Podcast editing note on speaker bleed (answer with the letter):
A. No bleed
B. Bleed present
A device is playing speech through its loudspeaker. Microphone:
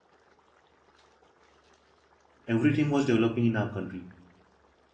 A